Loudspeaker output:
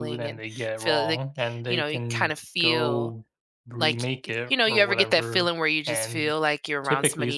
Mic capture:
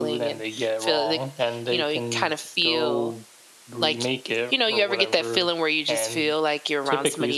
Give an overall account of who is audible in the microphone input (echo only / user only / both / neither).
echo only